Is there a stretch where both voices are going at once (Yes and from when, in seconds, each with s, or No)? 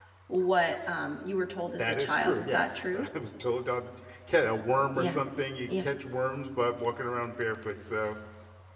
Yes, from 1.8 s